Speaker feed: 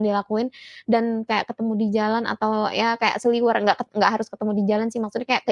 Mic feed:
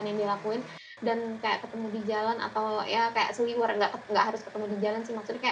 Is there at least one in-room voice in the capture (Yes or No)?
No